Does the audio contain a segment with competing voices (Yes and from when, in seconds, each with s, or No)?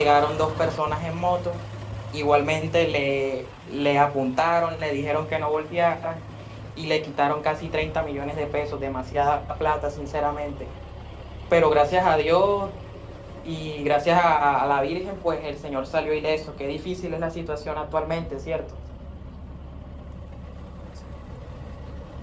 No